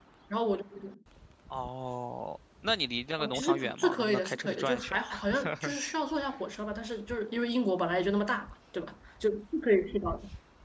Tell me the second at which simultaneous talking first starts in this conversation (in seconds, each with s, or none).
3.2 s